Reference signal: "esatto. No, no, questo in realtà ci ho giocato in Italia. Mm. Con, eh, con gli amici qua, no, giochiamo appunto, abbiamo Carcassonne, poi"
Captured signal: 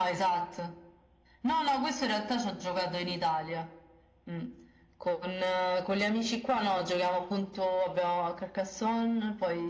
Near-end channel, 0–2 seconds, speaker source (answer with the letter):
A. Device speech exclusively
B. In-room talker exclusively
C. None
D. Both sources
A